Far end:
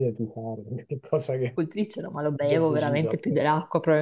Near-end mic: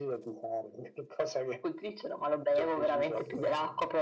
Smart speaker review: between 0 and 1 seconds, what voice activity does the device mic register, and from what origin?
echo only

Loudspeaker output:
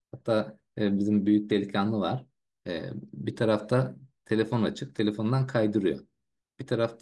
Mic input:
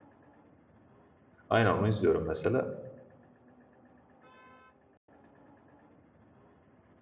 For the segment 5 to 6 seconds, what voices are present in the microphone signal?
neither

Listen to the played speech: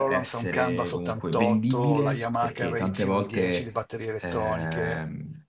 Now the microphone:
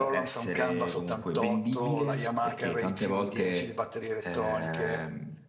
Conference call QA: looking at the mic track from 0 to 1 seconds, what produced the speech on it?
echo only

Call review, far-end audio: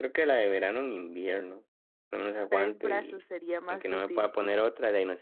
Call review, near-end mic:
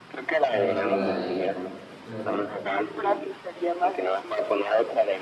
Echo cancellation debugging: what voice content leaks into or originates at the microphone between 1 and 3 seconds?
both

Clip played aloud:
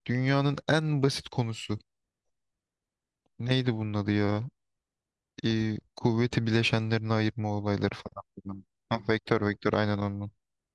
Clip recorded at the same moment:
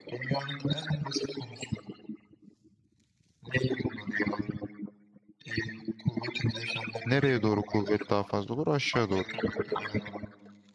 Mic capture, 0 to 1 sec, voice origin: echo only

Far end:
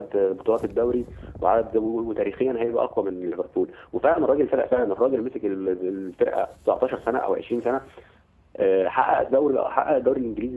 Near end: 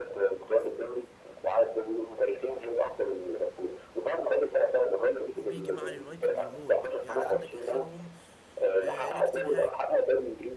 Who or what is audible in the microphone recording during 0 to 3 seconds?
echo only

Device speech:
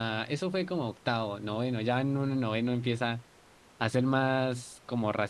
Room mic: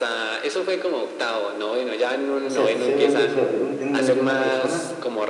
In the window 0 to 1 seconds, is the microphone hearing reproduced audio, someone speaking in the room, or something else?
echo only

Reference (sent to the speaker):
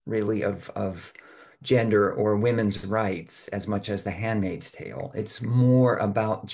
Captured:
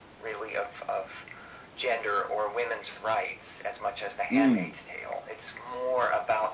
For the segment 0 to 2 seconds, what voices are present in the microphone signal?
echo only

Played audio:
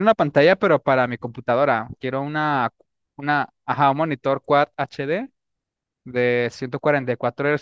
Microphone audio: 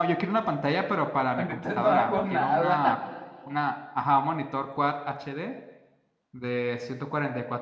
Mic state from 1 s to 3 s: both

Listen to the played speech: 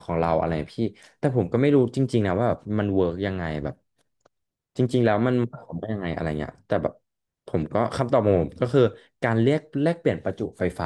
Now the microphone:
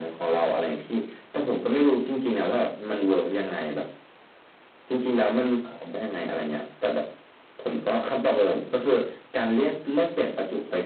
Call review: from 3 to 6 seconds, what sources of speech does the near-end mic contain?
echo only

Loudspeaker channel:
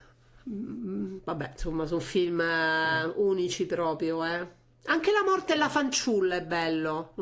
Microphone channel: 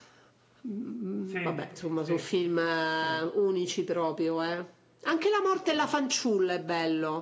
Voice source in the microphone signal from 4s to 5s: echo only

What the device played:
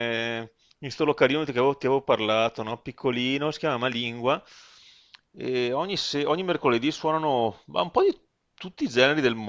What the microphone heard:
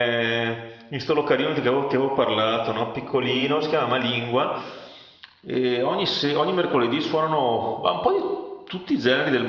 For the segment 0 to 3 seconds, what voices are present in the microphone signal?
echo only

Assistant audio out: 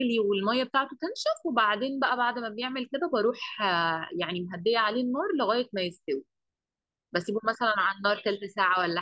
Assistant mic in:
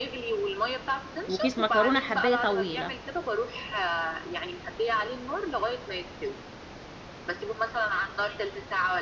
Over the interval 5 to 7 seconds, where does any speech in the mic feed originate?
echo only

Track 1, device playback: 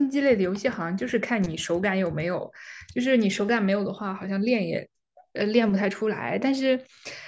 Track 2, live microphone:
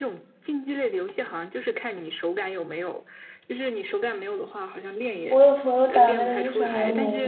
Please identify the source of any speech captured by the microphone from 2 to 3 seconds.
echo only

